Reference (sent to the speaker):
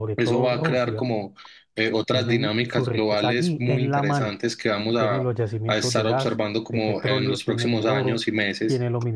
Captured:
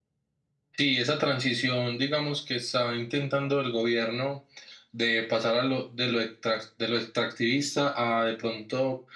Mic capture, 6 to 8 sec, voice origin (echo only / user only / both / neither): user only